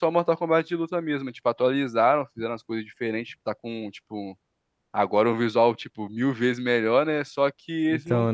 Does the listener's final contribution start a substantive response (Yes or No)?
No